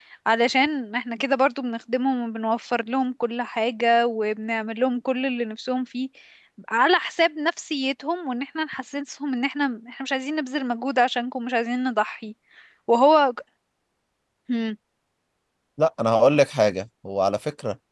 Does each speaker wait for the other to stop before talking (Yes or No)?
Yes